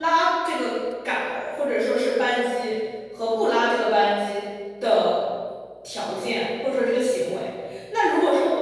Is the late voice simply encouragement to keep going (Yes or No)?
Yes